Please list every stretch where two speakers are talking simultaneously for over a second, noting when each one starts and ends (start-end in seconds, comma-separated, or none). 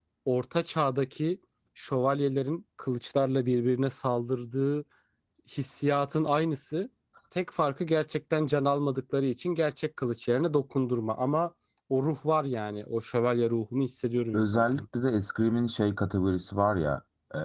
none